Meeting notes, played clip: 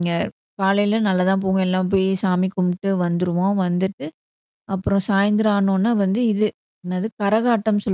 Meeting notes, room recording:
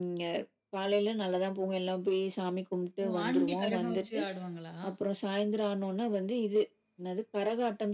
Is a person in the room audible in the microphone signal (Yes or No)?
Yes